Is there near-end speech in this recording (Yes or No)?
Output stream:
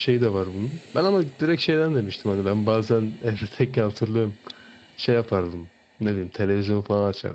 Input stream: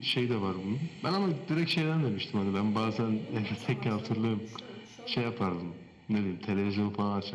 Yes